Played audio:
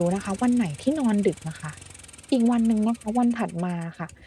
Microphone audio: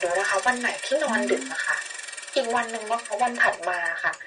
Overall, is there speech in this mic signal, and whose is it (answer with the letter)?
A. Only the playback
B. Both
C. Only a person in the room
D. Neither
B